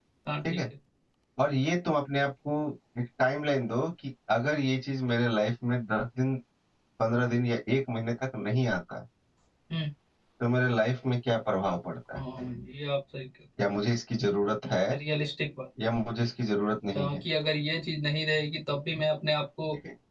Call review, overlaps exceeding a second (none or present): none